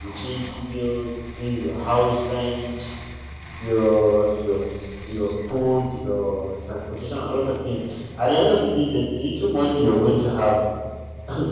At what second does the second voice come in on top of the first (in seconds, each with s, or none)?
none